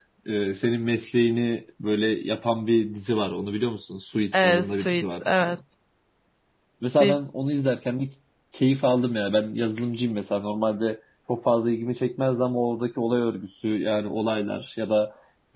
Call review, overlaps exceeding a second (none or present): present